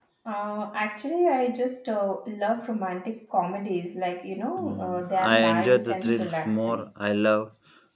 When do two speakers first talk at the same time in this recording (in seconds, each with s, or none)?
4.6 s